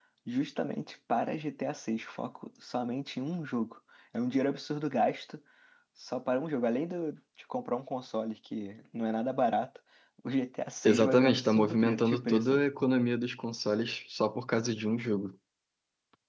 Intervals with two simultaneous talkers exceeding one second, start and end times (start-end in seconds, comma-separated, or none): 10.8-12.6